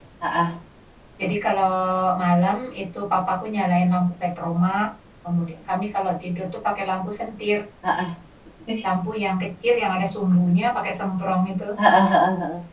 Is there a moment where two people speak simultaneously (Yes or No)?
No